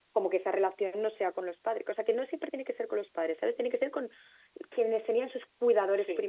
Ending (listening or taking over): taking over